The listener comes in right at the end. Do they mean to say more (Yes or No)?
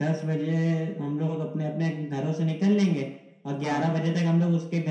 No